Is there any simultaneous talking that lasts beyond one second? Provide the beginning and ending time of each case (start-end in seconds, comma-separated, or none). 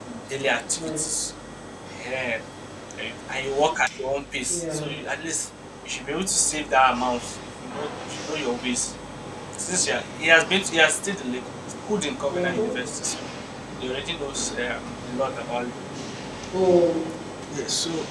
none